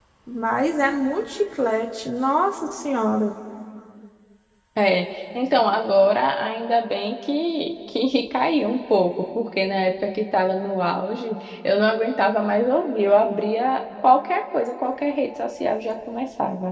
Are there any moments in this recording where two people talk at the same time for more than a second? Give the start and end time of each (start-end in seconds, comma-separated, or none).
none